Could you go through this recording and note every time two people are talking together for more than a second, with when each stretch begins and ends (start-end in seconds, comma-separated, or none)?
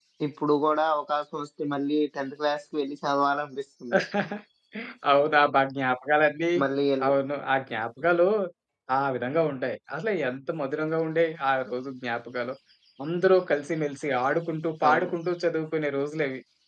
none